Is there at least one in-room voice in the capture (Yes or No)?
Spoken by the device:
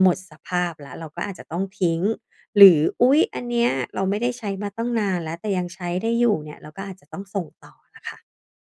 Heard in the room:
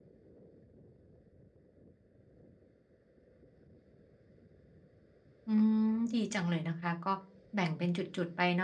Yes